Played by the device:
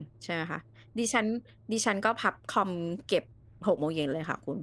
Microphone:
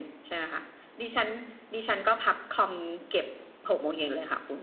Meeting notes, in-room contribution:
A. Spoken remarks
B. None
B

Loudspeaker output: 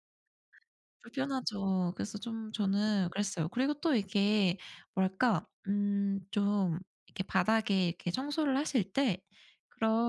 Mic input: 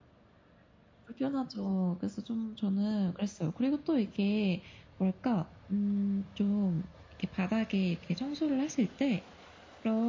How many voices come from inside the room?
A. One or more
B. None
B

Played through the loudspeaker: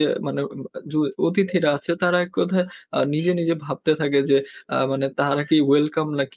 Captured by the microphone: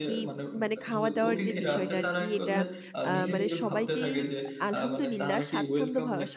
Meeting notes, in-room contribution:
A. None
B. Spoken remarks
B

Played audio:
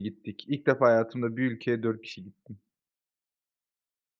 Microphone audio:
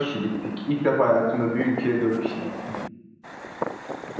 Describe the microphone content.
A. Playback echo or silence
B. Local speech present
A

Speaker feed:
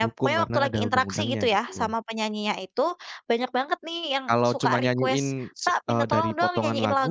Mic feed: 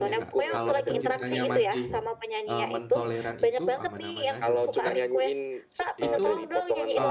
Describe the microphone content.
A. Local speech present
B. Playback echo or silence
A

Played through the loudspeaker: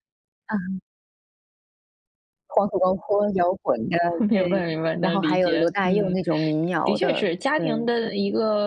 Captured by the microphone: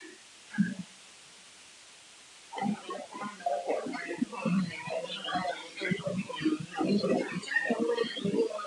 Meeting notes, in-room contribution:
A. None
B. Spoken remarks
A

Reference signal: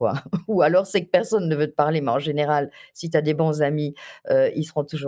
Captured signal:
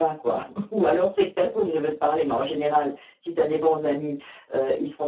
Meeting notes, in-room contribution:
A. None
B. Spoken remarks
A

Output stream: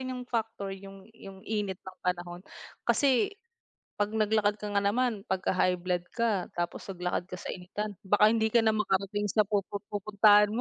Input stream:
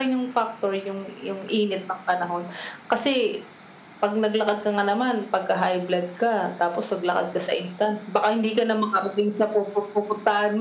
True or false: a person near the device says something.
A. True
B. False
B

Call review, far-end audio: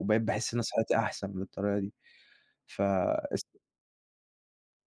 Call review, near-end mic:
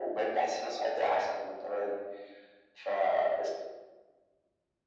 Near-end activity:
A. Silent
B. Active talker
A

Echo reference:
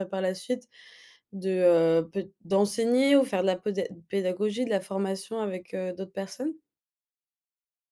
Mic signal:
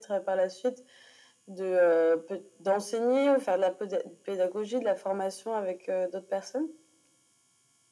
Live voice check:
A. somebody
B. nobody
B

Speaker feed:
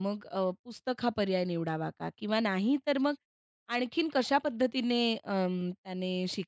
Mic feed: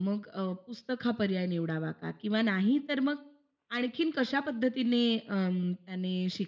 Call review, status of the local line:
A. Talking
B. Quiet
B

